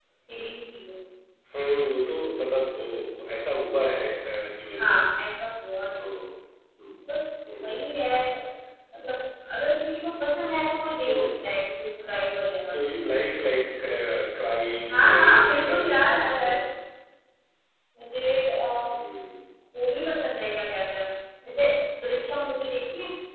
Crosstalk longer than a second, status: present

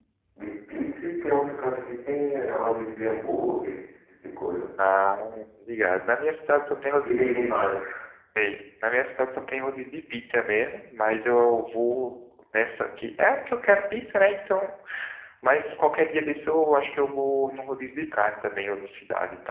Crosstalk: none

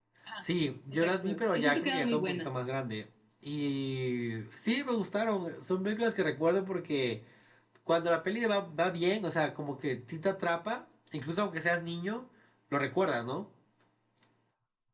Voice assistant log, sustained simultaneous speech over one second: present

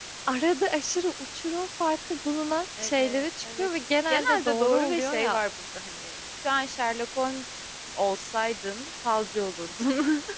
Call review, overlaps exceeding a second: present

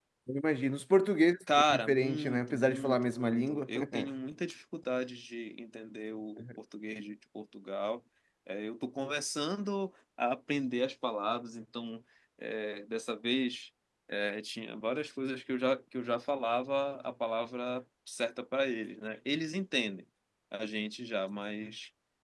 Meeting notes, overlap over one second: present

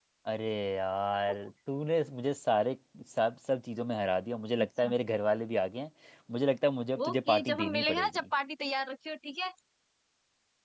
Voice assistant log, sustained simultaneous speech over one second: present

